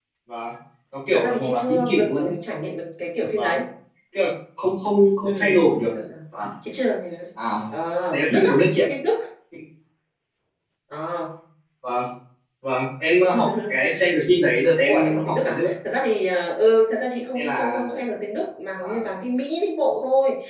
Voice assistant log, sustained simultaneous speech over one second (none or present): present